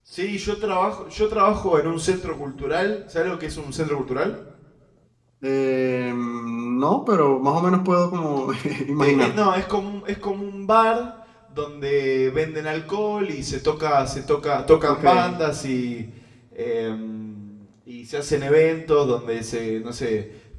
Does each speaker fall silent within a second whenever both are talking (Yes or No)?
Yes